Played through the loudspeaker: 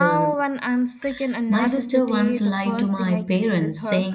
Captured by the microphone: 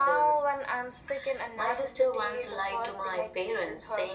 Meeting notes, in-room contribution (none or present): none